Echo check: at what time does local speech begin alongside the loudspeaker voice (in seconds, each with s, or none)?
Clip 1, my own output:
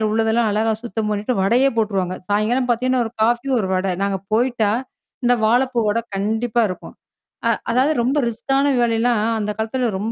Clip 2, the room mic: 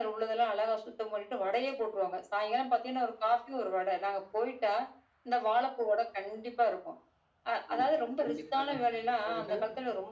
7.7 s